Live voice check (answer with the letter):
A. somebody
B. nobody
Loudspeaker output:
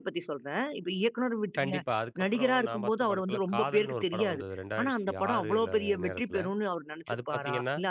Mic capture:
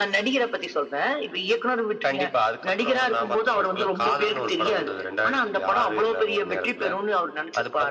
B